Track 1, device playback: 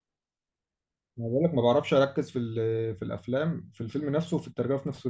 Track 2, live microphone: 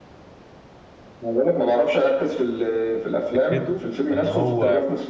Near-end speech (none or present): present